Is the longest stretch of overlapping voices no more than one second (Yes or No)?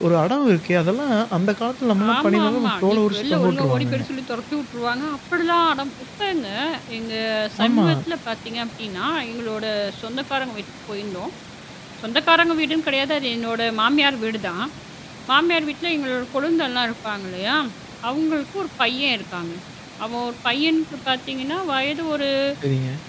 No